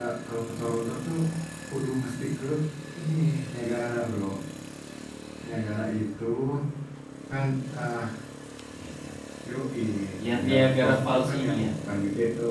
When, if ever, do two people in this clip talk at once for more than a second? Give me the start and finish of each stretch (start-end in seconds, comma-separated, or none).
10.3-11.7